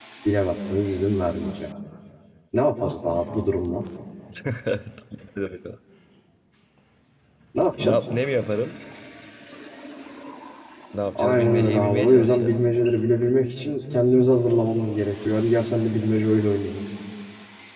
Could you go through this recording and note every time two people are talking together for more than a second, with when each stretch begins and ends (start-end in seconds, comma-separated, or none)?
11.2-12.5